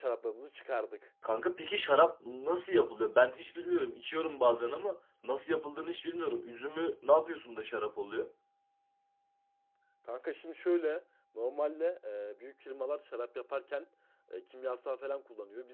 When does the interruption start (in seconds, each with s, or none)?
none